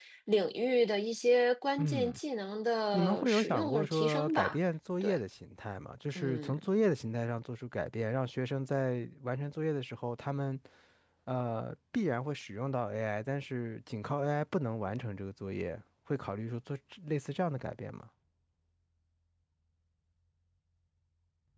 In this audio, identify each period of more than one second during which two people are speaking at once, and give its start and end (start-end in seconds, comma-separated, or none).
2.9-4.6